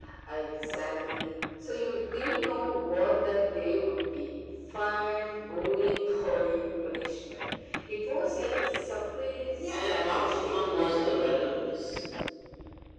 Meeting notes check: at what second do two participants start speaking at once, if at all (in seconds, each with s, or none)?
9.6 s